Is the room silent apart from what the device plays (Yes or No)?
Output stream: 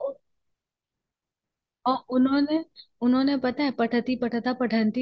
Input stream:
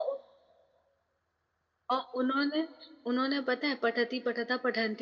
Yes